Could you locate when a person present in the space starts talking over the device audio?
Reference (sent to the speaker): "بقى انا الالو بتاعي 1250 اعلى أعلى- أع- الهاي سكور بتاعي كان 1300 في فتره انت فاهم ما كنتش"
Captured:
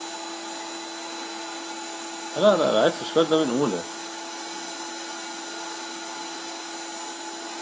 2.4 s

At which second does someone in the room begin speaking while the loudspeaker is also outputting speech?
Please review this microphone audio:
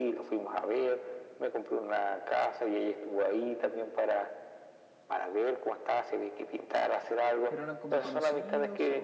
7.5 s

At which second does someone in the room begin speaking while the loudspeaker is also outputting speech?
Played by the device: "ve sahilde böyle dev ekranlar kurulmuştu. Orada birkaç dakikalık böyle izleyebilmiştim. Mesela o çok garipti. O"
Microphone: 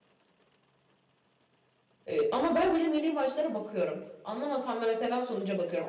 2.1 s

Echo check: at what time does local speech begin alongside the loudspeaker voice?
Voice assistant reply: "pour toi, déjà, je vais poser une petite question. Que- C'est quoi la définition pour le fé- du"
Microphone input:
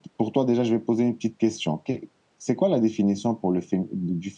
none

